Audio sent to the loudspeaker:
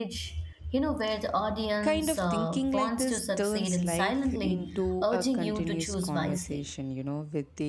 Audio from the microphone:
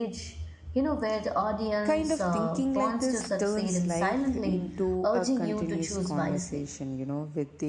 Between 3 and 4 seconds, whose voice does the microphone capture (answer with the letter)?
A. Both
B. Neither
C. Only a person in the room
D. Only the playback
D